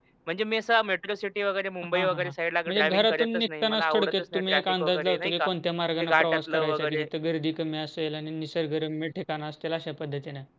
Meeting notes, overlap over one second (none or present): present